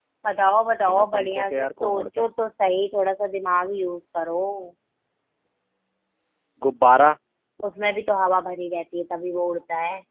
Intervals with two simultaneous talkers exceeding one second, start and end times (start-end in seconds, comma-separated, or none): 0.9-2.3